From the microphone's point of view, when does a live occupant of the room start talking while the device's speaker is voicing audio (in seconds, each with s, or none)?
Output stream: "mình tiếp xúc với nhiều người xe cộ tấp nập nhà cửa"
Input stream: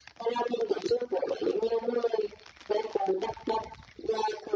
none